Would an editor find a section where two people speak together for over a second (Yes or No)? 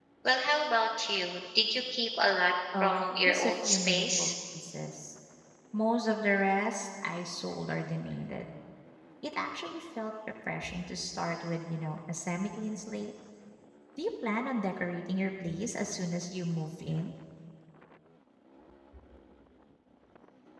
Yes